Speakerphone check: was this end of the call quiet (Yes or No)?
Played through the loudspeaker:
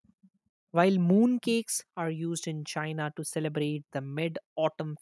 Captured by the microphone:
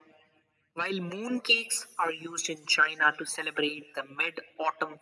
Yes